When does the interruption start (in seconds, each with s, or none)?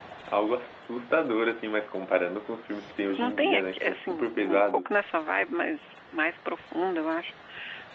3.1 s